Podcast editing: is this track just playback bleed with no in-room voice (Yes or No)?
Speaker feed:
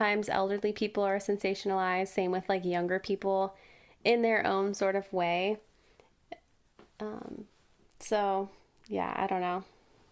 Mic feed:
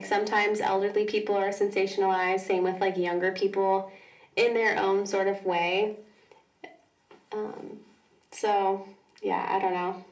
Yes